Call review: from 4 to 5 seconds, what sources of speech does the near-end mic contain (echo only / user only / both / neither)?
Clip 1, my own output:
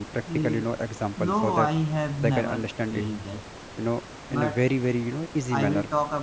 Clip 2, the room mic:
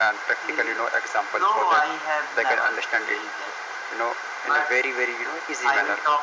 echo only